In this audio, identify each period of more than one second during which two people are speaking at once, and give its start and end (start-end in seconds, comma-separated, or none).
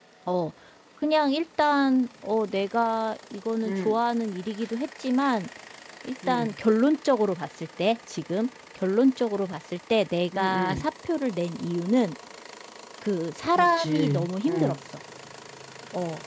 13.6-14.8